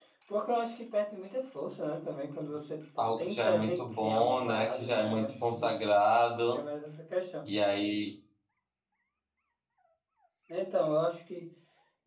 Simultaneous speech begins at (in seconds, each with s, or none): 3.0 s